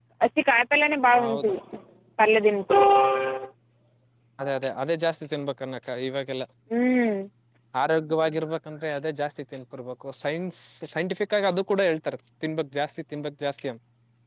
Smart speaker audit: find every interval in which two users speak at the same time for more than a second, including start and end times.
none

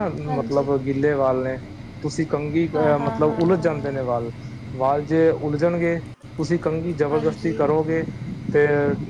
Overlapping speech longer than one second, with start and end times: 2.7-4.0

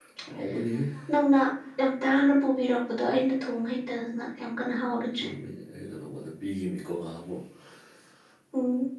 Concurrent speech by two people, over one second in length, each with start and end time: none

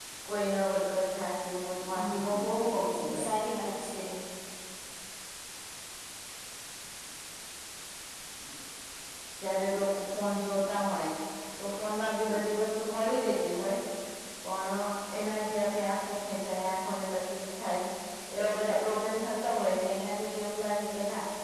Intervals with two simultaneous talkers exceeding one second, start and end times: 1.9-3.2

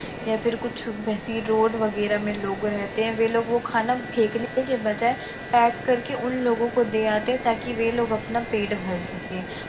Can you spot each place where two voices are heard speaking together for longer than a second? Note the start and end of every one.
none

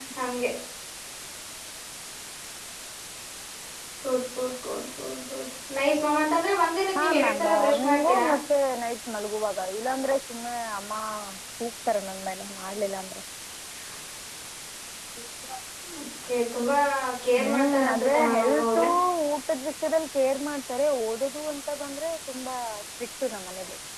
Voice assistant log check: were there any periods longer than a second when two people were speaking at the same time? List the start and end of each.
7.0-8.2, 17.4-18.8

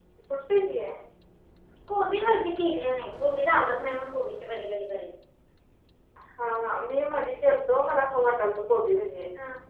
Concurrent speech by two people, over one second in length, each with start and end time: none

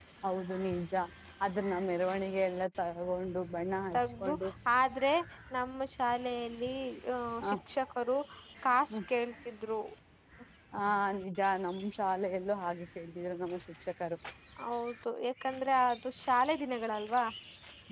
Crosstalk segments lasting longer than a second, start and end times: none

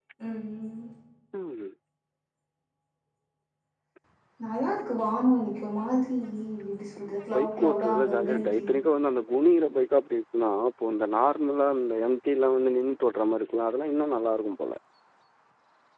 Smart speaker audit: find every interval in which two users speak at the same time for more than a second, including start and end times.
7.3-8.7

